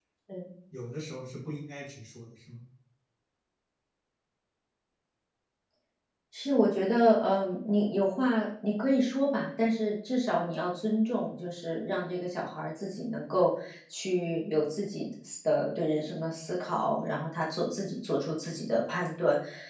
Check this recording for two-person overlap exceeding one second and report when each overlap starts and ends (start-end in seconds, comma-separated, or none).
none